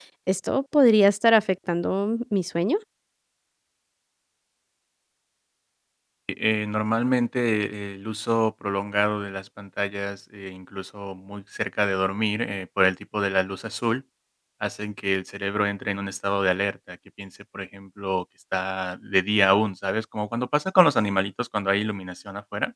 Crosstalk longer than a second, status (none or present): none